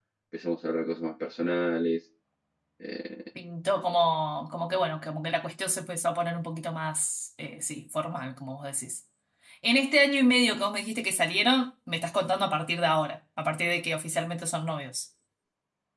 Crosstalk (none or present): none